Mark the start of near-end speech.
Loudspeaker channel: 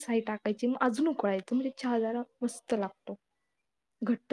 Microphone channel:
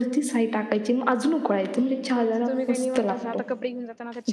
2.1 s

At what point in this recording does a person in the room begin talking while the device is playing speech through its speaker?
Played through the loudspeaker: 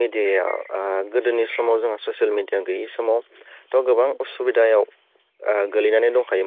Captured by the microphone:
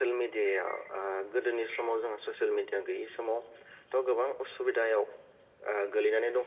none

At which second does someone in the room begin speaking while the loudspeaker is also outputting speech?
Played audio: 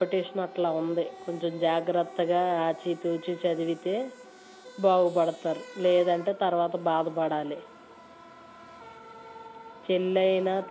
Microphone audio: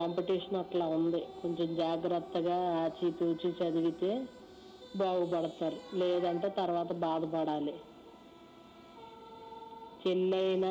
none

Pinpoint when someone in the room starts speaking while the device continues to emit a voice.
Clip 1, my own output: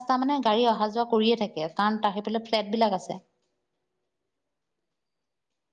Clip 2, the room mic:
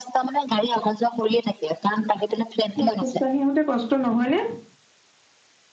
2.7 s

